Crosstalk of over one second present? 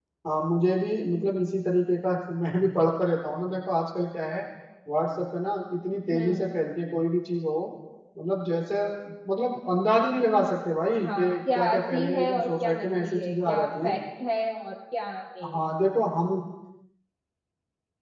Yes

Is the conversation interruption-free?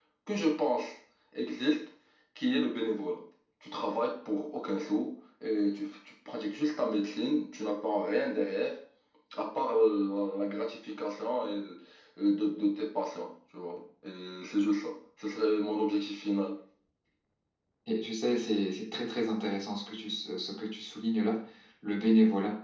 Yes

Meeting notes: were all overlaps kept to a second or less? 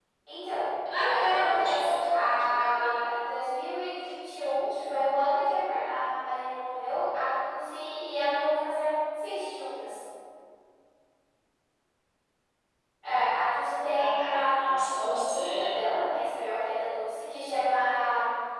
No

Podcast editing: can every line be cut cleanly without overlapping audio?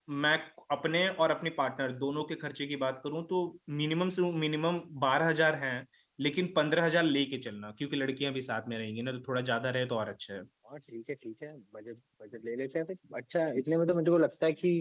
Yes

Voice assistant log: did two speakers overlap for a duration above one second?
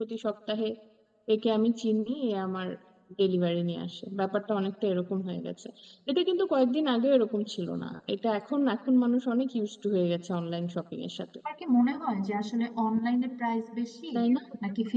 No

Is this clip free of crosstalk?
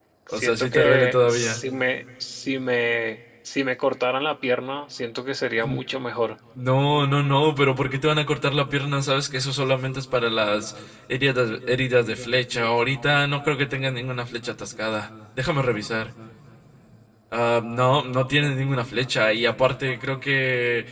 No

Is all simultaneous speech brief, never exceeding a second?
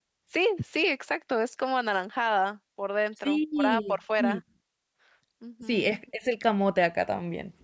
No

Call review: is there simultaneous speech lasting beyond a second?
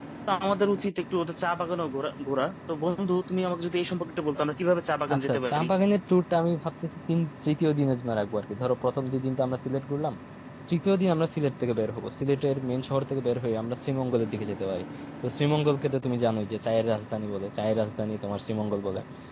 No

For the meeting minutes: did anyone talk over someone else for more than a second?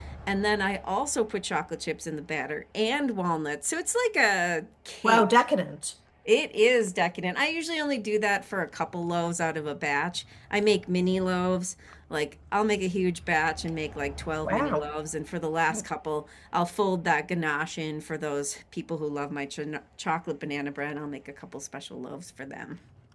No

